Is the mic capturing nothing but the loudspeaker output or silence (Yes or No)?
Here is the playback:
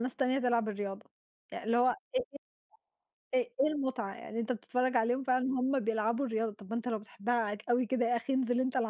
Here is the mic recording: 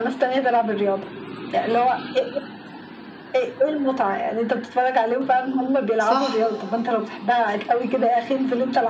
No